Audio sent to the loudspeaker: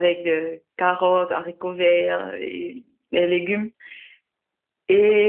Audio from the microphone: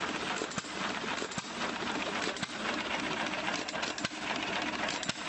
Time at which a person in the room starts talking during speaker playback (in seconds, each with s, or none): none